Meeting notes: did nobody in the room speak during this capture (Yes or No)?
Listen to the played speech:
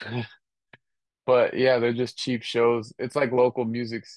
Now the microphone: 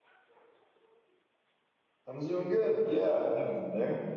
No